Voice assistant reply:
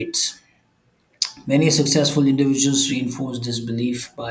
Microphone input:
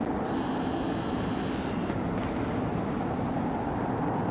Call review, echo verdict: none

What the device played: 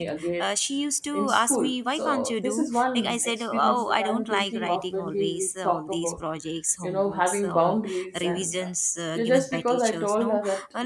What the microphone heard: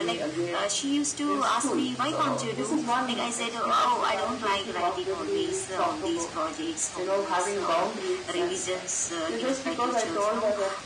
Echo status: present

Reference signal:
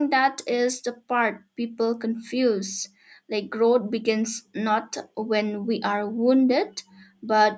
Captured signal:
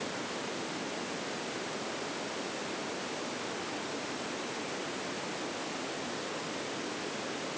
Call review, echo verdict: none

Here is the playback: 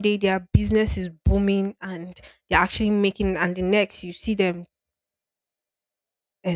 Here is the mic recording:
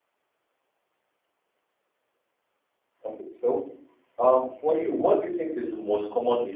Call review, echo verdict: none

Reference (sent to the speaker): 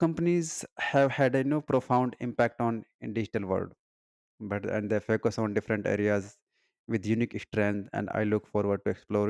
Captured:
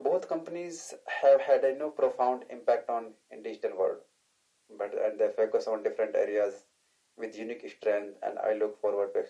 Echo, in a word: present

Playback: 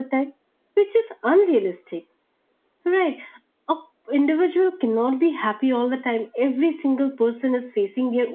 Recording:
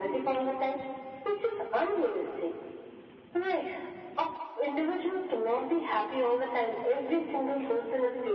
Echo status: present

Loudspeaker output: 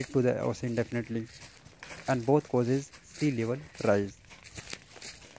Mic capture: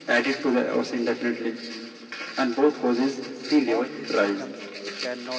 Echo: present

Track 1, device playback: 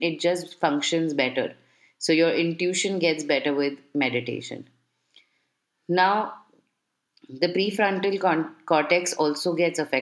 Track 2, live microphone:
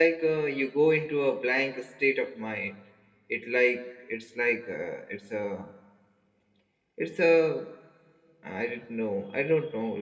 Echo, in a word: none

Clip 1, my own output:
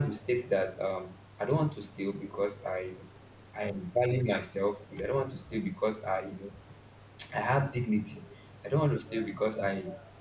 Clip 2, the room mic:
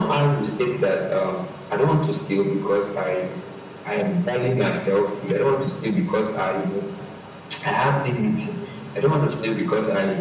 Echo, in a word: present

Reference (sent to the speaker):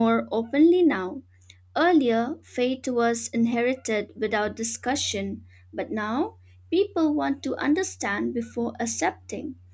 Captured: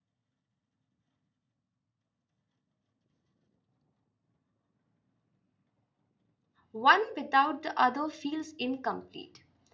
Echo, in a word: none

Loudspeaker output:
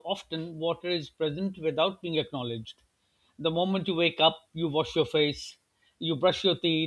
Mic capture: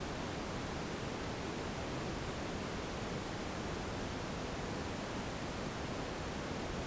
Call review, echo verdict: none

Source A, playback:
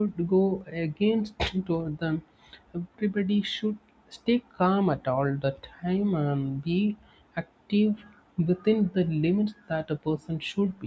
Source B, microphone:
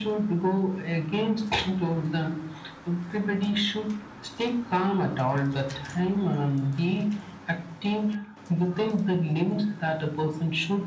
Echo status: present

